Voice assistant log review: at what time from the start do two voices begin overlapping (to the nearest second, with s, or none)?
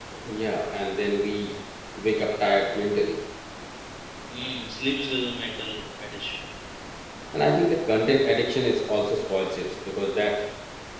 none